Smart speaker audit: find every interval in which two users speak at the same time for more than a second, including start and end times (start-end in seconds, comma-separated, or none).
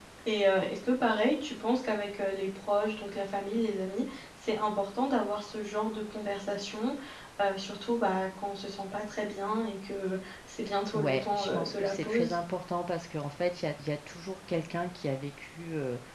11.0-12.4